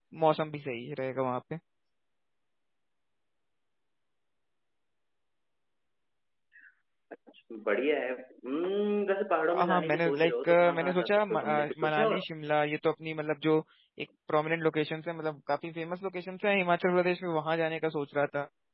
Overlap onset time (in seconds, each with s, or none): 9.5 s